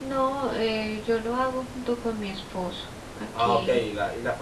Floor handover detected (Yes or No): Yes